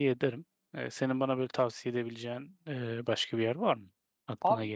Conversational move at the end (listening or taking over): taking over